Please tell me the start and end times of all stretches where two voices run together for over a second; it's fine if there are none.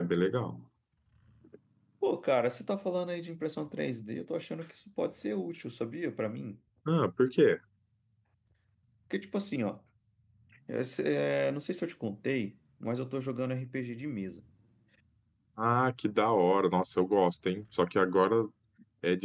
none

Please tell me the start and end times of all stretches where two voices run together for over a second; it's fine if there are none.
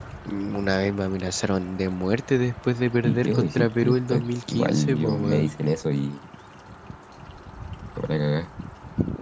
3.0-5.5

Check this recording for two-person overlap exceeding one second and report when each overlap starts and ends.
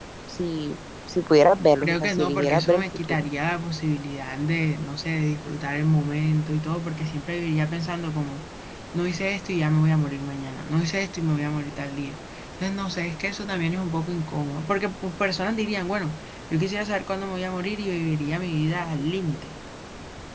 1.8-3.3

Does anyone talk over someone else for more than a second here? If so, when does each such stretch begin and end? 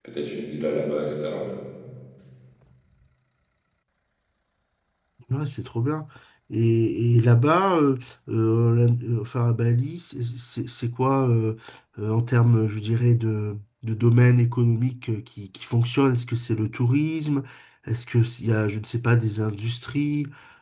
none

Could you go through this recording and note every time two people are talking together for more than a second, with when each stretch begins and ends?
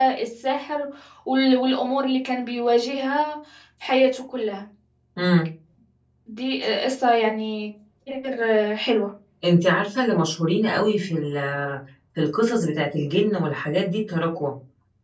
none

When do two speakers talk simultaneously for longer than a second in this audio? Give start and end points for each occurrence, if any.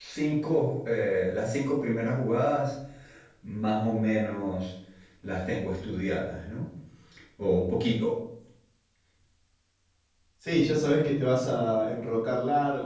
none

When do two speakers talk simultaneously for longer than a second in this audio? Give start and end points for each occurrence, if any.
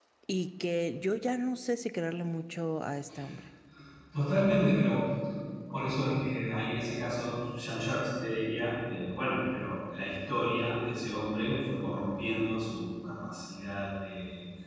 none

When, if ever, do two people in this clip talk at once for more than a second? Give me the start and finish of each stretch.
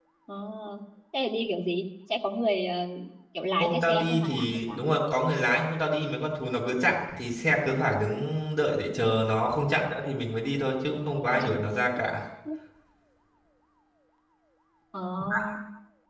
3.6-4.8

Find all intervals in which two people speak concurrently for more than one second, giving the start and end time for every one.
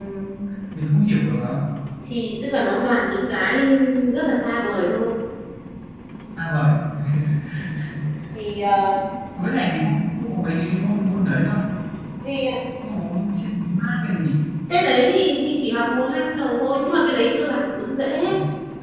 none

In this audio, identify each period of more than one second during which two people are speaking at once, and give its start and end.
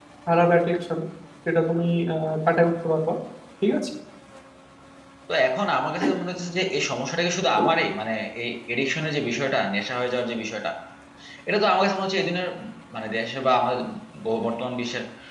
none

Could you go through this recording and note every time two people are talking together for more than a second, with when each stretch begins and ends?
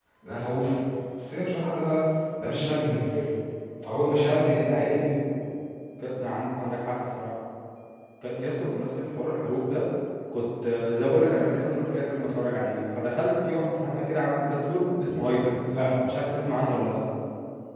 none

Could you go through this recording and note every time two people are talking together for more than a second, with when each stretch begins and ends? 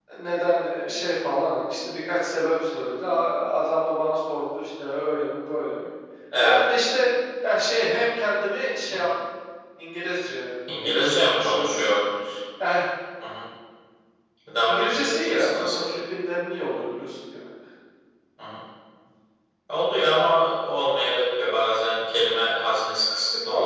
10.7-11.9, 14.7-15.9

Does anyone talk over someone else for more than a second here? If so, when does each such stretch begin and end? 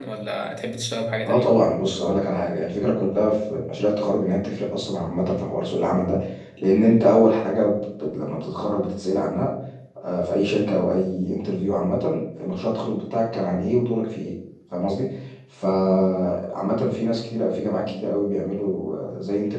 none

